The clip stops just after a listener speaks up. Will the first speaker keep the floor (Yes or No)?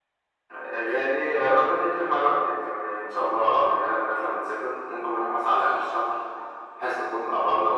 Yes